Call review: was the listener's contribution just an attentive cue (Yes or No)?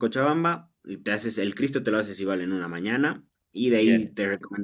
Yes